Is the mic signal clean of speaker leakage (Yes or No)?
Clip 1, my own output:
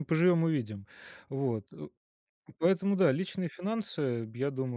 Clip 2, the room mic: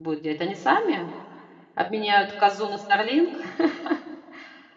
Yes